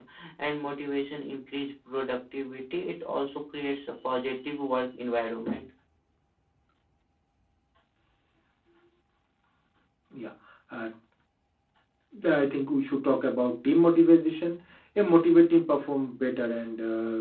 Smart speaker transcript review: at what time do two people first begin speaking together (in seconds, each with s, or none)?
none